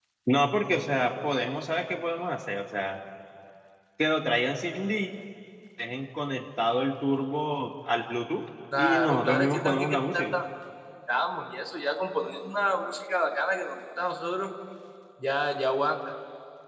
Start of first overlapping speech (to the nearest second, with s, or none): 9 s